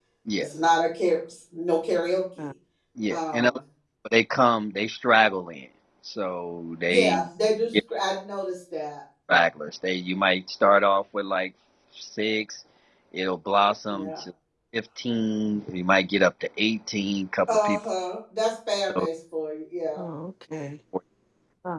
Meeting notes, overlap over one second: none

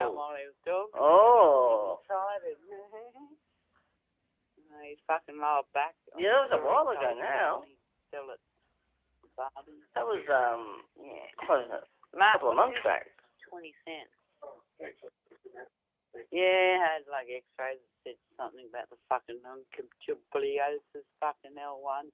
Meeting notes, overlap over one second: present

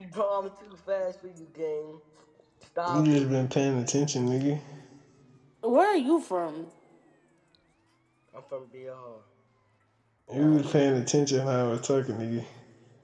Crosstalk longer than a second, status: none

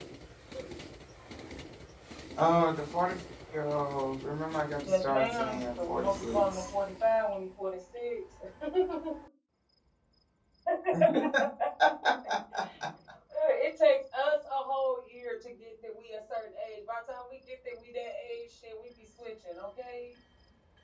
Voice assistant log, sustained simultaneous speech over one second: present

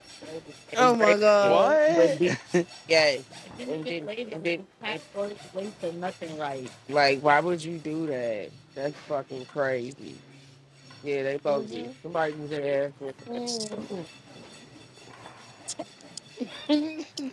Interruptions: present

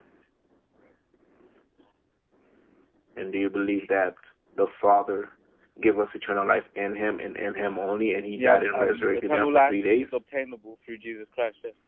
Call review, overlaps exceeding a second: present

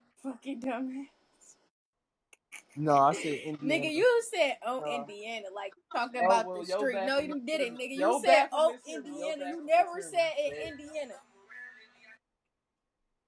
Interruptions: present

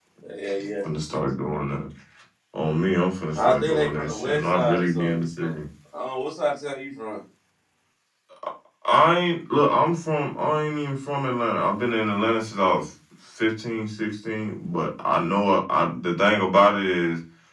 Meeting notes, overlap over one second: present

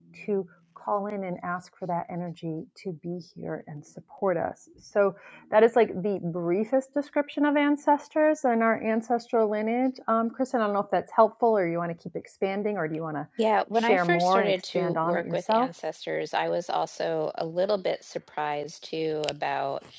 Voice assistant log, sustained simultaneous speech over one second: present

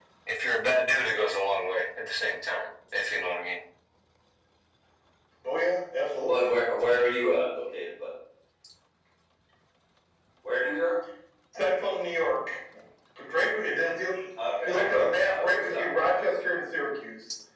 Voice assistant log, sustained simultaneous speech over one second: present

